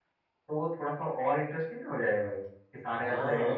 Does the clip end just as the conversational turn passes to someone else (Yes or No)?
Yes